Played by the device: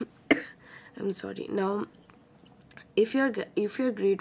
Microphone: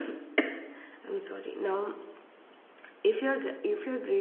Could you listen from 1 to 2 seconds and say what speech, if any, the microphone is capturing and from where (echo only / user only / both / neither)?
echo only